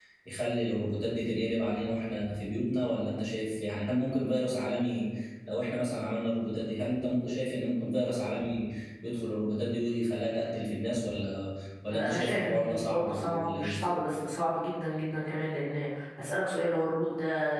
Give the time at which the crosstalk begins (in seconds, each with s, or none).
11.9 s